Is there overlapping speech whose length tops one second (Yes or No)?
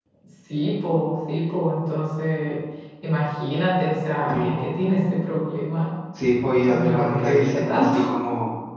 Yes